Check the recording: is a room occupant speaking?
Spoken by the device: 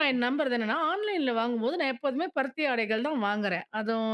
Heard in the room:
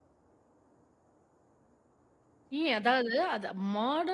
Yes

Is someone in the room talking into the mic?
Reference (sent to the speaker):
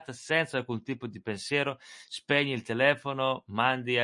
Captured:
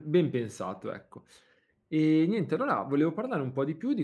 Yes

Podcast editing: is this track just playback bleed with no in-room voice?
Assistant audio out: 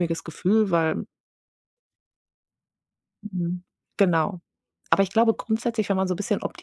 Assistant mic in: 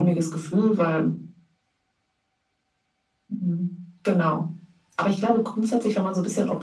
Yes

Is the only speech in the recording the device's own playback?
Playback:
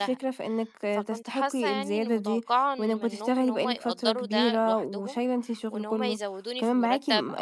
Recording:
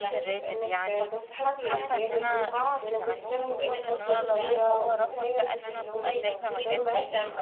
No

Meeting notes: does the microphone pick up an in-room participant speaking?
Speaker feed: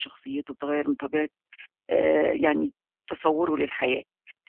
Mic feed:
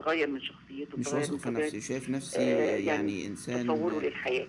Yes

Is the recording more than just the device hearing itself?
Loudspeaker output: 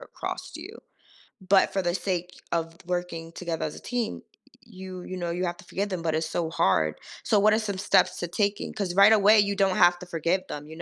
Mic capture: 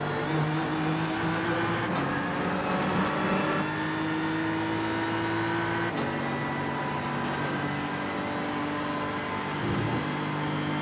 No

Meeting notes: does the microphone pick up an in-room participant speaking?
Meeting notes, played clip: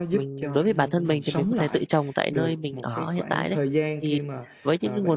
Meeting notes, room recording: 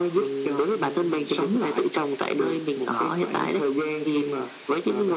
No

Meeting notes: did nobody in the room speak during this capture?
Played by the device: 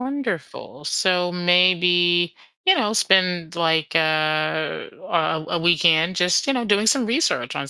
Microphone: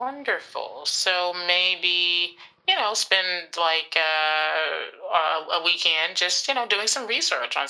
Yes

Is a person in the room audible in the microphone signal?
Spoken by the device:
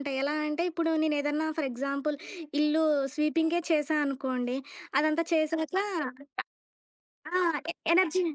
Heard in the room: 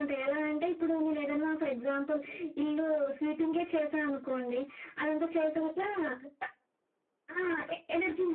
No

